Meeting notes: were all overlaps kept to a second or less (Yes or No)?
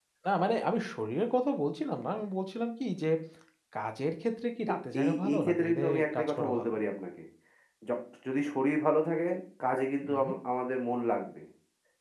No